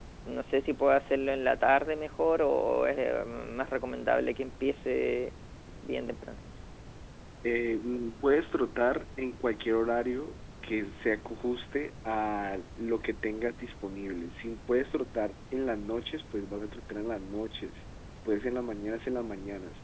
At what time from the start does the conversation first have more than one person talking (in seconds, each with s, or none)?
none